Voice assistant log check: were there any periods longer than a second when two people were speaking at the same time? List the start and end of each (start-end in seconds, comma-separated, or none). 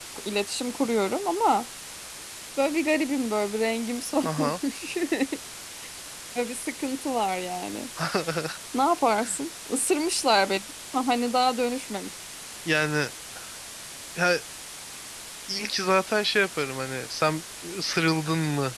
none